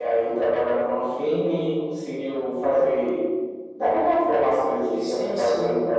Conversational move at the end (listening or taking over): taking over